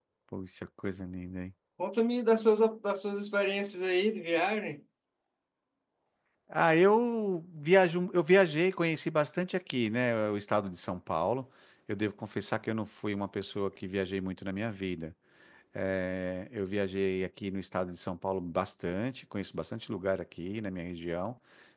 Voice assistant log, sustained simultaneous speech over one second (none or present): none